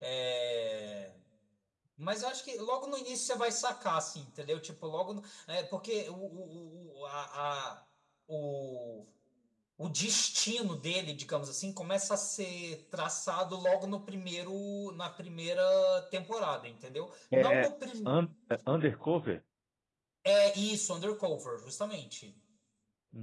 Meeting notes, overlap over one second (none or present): none